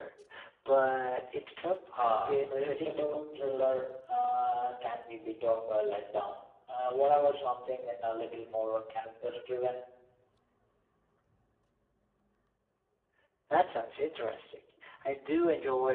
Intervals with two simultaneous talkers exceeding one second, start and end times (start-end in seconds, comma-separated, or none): 2.0-3.2